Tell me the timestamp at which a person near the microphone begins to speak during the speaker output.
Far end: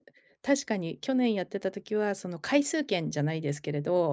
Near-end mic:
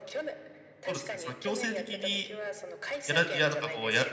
1 s

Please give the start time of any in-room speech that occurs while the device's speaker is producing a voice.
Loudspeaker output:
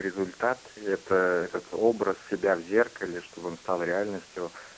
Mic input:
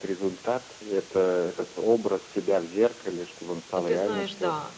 4 s

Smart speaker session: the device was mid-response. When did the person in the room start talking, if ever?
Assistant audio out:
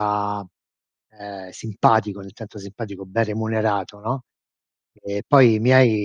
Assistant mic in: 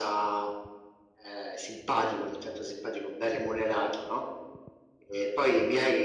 none

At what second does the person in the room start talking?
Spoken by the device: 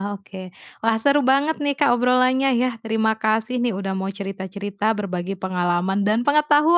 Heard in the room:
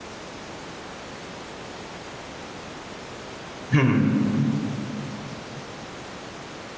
4 s

